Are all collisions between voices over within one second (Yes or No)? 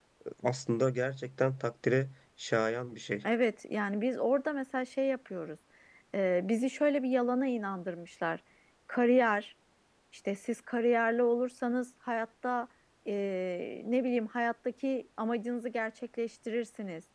Yes